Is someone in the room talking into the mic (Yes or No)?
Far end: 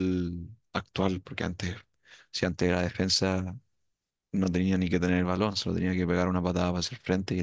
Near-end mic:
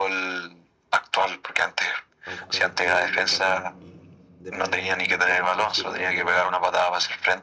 Yes